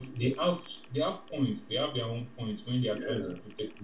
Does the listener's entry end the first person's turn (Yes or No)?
No